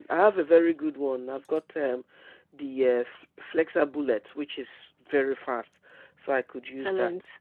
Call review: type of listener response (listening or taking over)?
taking over